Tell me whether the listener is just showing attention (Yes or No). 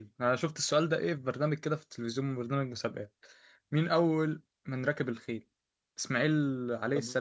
Yes